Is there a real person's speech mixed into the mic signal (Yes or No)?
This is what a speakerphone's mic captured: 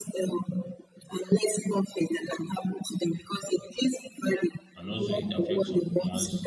Yes